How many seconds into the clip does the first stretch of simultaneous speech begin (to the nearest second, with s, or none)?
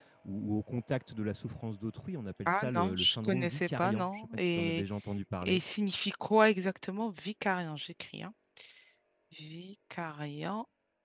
2 s